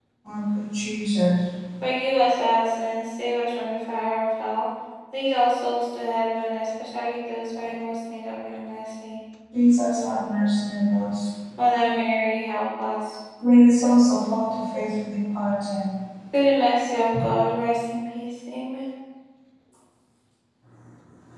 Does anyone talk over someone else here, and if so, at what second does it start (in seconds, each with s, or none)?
none